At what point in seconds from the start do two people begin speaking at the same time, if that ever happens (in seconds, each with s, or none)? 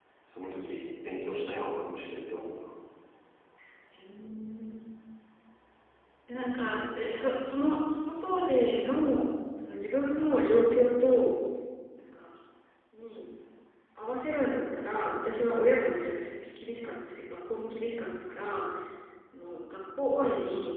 none